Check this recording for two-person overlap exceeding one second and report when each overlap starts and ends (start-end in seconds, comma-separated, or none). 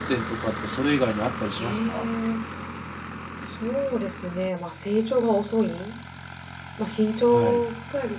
none